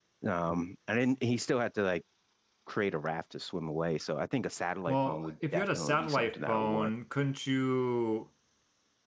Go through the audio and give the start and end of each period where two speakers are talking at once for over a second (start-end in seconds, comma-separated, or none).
4.9-6.9